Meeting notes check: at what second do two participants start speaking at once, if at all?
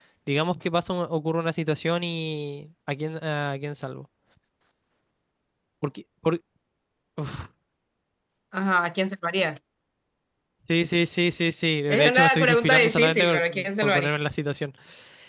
12 s

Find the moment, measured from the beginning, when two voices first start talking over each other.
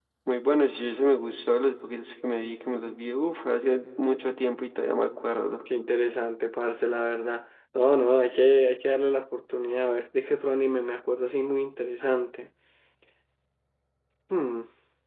none

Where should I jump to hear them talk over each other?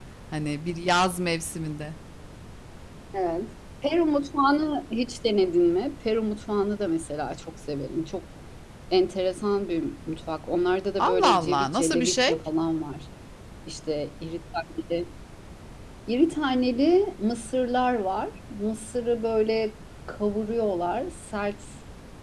11 s

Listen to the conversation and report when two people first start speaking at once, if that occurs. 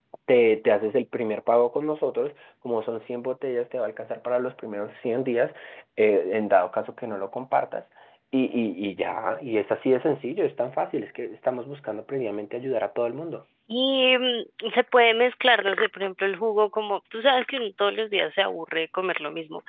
none

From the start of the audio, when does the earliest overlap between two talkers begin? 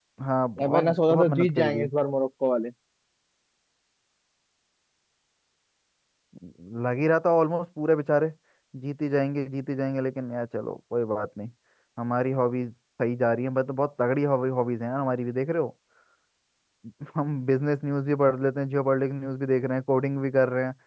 1 s

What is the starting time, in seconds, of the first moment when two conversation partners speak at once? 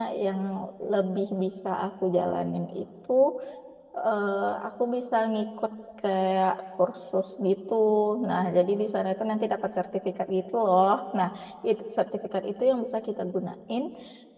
none

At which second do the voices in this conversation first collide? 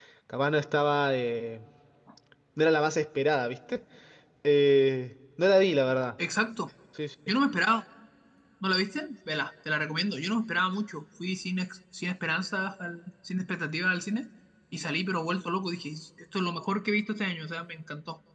none

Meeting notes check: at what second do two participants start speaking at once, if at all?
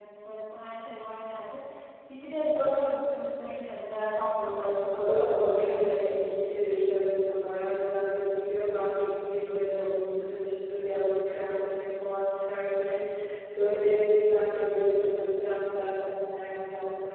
4 s

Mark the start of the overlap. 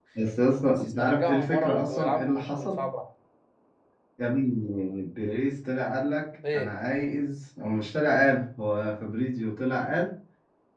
1 s

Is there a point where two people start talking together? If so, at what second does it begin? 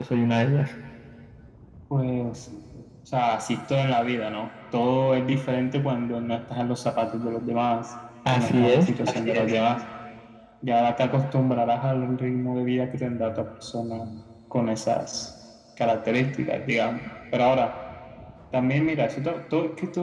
8 s

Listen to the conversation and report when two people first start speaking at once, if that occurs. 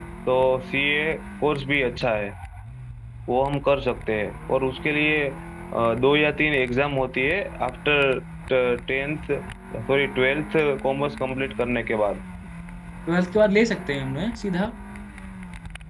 none

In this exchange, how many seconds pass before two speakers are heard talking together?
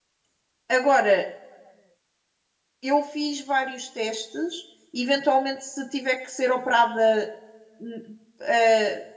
none

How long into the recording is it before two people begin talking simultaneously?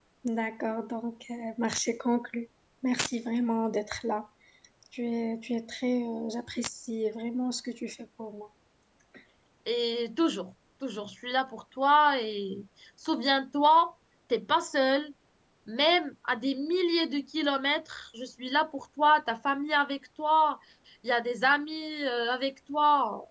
none

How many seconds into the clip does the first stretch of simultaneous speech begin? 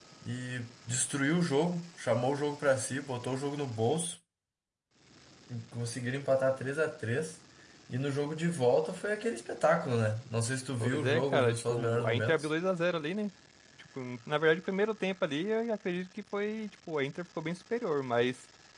11 s

